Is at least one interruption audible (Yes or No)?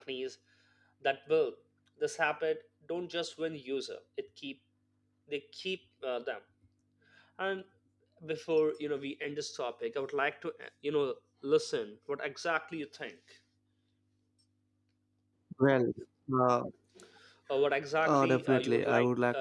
Yes